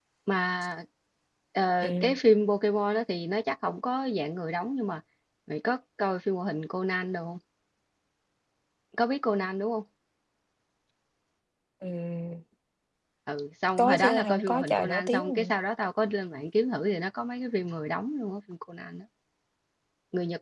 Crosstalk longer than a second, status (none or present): present